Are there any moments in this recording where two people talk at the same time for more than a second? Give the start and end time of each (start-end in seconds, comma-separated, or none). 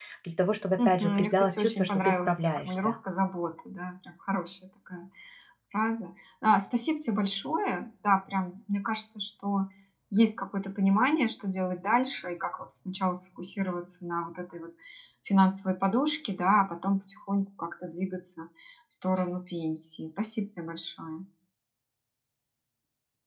0.8-2.9